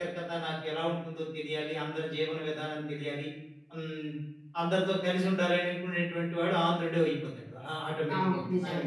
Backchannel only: Yes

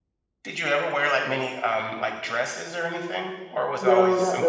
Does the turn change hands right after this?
Yes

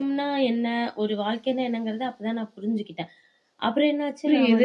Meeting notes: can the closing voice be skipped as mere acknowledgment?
No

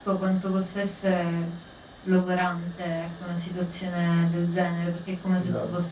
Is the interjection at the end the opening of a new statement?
No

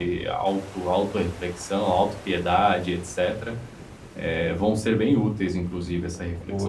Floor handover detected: No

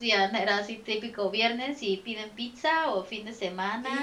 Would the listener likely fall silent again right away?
No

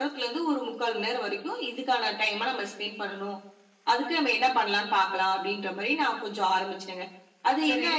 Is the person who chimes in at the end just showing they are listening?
No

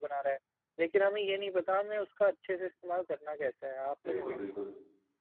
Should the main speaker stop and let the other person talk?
Yes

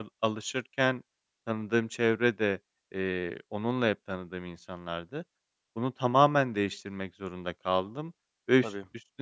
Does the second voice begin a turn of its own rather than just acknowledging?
No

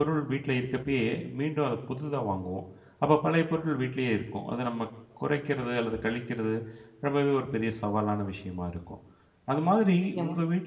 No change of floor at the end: Yes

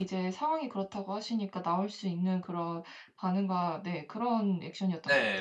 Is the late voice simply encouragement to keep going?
No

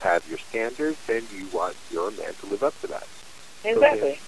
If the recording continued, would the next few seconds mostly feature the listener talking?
Yes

